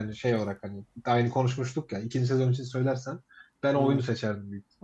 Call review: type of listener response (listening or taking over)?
listening